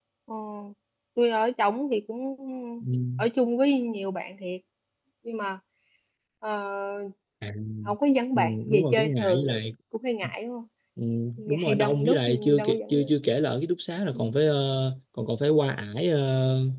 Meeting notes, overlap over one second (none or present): present